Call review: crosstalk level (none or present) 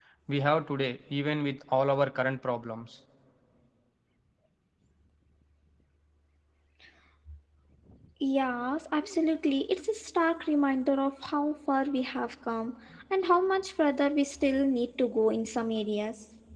none